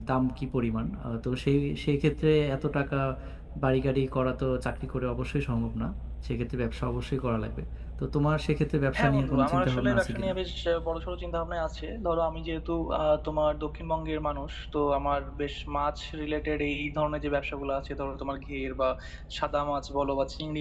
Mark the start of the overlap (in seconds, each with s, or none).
8.9 s